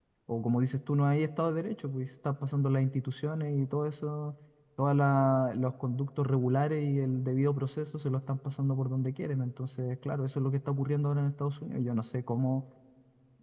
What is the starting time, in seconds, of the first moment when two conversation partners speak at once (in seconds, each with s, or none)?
none